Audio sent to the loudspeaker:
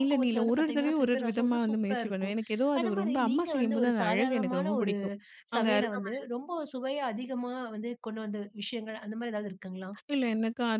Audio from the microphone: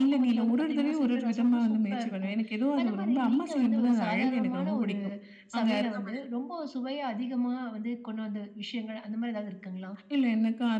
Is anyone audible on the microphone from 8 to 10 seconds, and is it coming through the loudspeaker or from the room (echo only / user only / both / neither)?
echo only